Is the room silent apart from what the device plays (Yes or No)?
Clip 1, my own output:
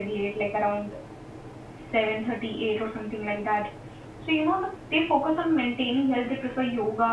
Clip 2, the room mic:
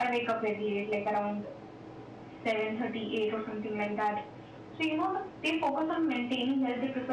Yes